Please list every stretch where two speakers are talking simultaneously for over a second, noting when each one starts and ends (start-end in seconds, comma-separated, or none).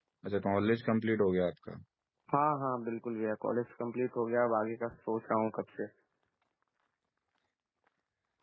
none